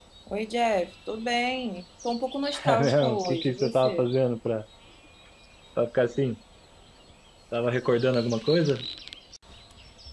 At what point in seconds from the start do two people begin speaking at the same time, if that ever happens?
2.5 s

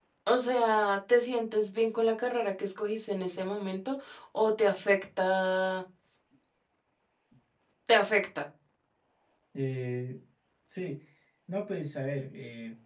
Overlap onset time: none

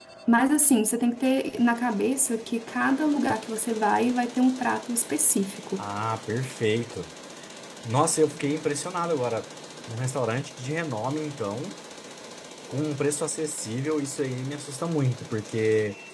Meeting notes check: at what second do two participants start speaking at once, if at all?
none

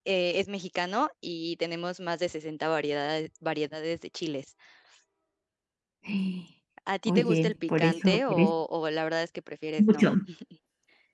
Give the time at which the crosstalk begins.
7.1 s

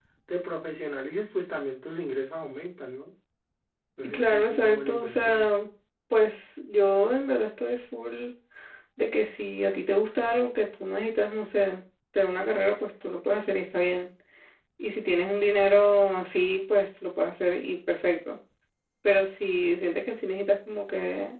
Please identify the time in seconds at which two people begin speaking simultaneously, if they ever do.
4.1 s

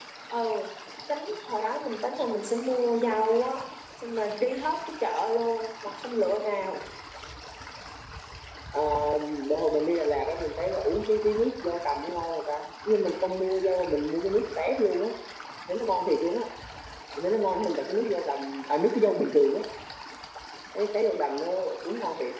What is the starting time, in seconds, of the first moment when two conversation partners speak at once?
none

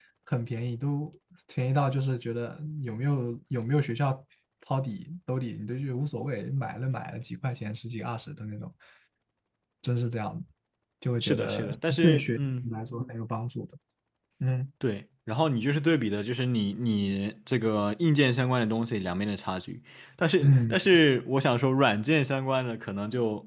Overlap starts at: 11.2 s

